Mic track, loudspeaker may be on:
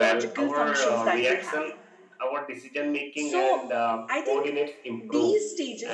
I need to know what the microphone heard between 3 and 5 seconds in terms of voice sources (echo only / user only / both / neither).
both